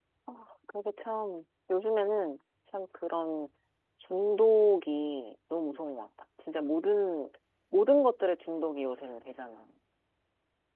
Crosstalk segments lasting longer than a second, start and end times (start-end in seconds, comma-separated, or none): none